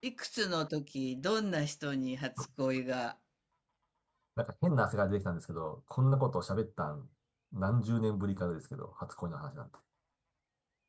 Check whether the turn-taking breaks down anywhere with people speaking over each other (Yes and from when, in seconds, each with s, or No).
No